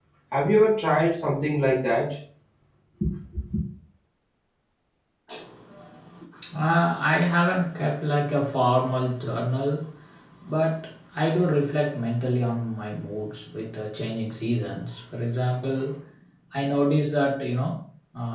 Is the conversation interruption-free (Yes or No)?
Yes